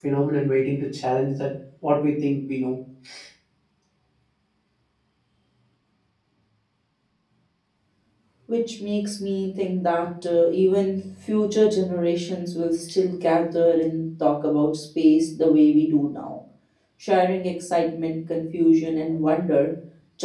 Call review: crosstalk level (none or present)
none